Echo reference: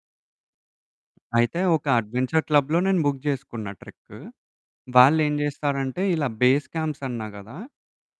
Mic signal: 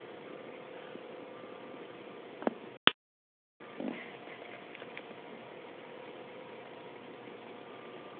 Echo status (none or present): none